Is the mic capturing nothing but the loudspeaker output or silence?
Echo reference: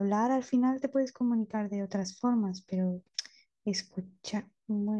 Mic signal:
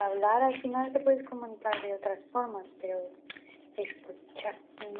Yes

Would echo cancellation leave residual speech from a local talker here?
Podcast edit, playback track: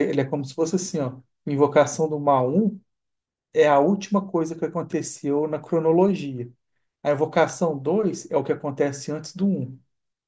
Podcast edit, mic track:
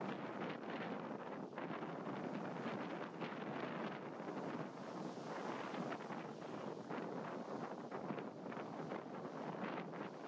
No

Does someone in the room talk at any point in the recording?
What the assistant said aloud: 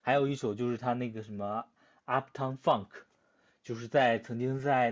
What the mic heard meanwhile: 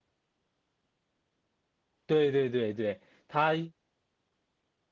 Yes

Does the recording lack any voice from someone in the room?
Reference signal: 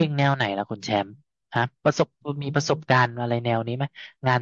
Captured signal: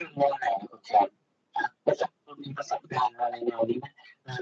Yes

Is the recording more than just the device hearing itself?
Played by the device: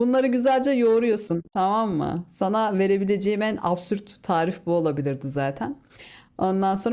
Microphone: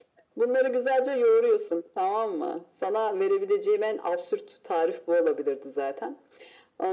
No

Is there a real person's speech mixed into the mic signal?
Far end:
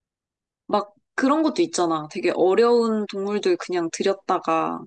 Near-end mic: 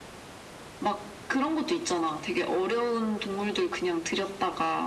No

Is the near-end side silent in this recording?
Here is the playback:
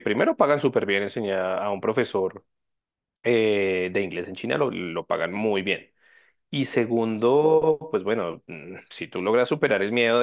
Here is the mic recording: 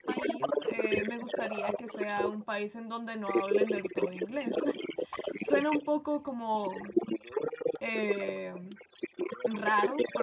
No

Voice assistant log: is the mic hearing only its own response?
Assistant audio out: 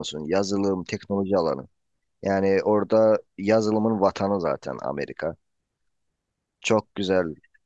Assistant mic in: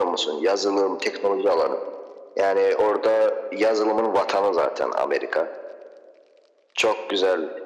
Yes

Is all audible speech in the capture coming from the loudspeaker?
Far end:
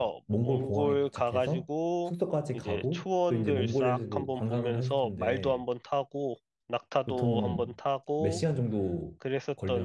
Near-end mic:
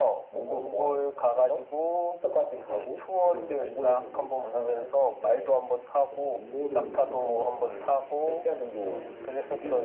No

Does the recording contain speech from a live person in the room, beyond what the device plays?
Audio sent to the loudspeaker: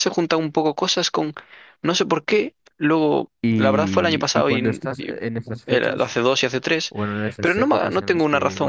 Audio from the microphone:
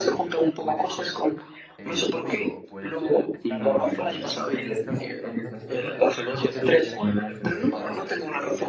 Yes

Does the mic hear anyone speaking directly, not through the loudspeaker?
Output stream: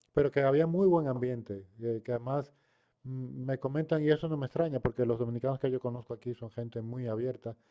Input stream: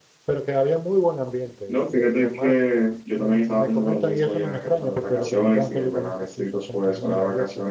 Yes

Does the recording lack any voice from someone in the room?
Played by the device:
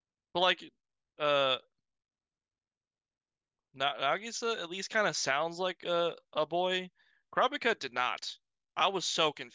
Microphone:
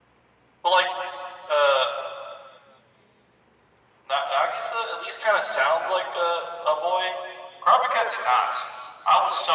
Yes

